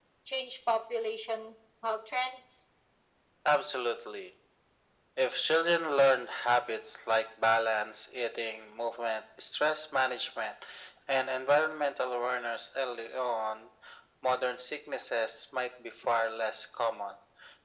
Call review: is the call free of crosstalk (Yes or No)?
Yes